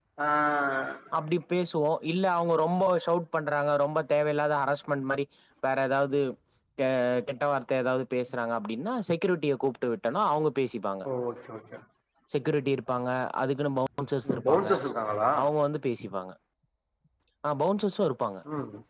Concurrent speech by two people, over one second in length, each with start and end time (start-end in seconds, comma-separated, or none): none